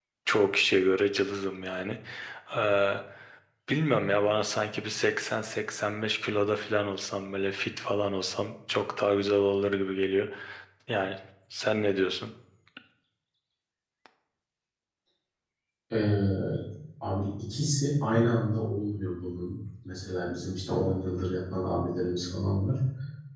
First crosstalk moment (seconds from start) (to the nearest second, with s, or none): none